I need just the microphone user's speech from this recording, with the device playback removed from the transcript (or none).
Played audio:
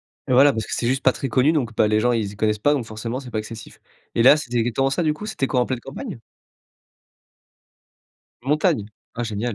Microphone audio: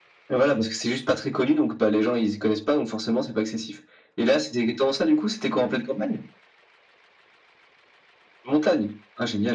none